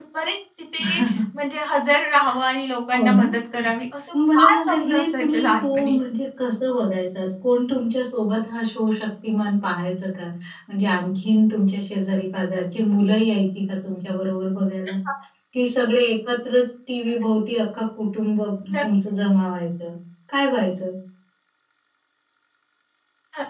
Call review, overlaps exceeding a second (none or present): present